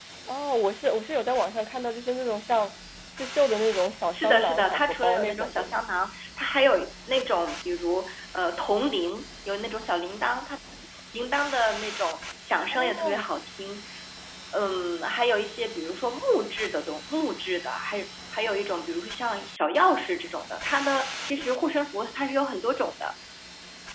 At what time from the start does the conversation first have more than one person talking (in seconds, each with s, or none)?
4.1 s